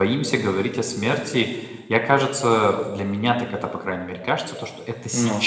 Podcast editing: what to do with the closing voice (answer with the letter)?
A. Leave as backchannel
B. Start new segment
A